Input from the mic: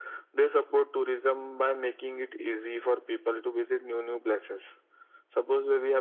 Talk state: echo only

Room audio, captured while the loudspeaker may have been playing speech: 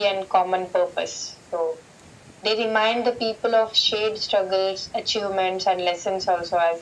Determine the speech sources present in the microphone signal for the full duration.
echo only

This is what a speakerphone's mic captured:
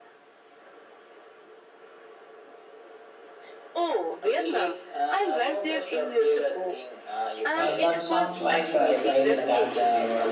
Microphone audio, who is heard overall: both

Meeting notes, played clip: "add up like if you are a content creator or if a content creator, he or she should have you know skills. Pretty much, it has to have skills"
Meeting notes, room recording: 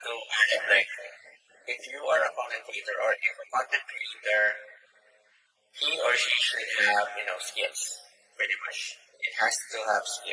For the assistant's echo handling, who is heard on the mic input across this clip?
echo only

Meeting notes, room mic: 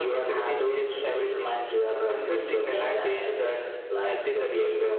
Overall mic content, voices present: echo only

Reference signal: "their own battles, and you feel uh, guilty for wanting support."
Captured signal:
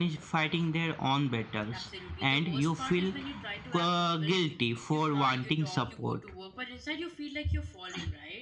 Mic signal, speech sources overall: both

